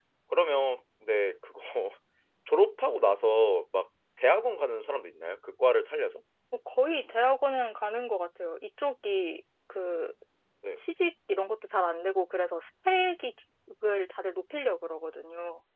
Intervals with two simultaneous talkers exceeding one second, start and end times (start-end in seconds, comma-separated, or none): none